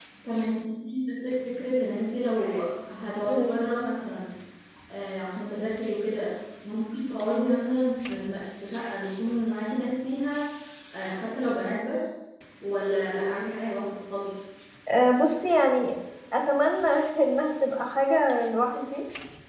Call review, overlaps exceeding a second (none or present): none